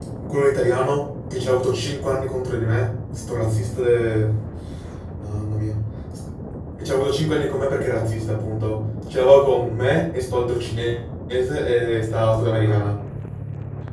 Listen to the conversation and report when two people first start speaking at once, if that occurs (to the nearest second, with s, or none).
none